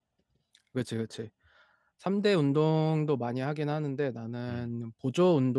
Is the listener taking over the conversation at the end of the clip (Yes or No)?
No